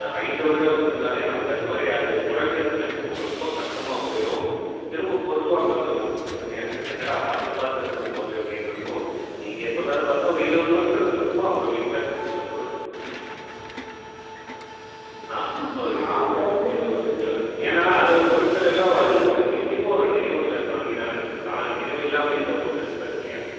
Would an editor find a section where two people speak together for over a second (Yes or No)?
Yes